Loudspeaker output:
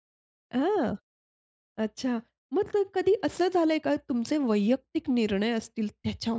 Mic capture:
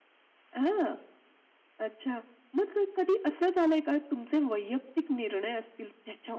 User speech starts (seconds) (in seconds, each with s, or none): none